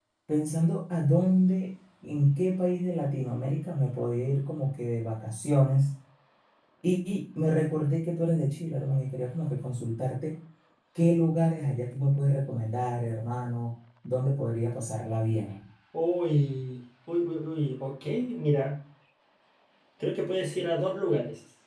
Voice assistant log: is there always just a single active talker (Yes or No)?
Yes